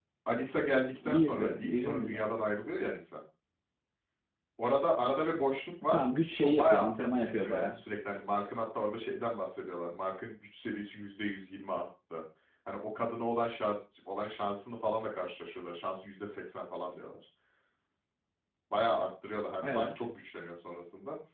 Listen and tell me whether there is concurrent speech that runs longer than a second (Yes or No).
Yes